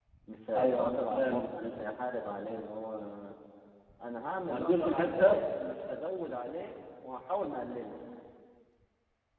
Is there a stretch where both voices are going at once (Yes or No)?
Yes